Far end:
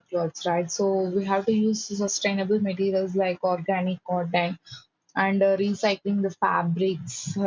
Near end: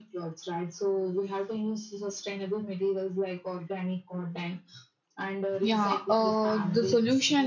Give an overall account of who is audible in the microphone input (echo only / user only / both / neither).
both